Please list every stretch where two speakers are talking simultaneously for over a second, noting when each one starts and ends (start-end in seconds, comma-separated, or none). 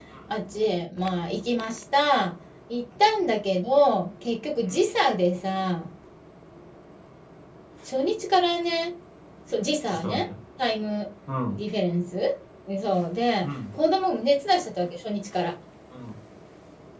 none